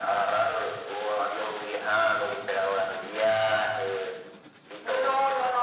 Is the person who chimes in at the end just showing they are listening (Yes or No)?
No